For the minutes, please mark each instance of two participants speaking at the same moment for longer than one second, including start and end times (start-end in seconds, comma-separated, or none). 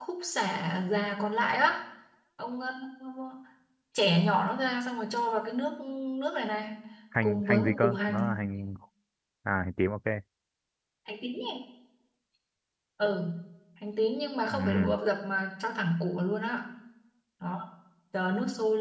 7.2-8.5